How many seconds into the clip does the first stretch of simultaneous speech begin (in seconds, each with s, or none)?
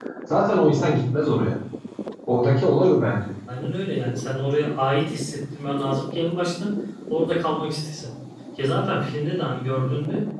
none